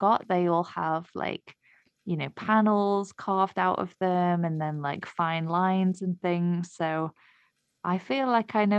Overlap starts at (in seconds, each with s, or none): none